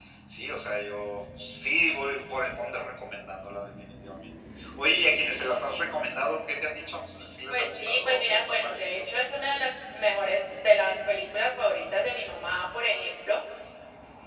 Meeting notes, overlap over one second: present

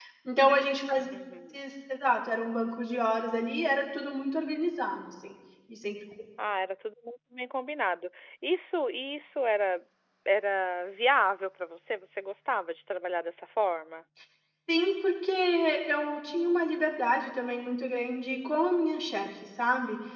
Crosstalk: none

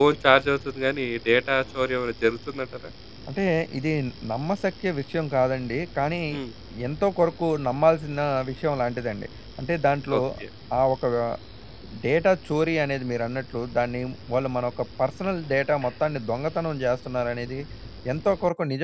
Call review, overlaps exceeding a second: none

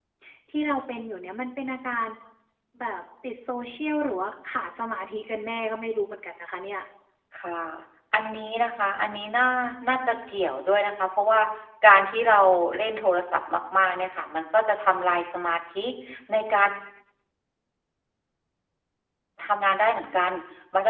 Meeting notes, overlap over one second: none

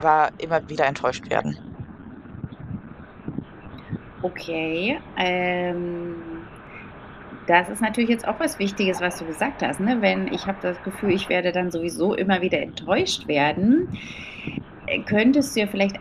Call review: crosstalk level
none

